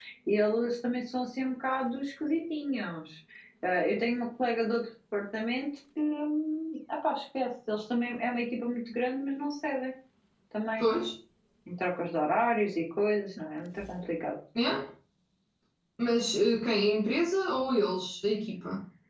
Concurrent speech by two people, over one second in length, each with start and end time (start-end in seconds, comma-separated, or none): none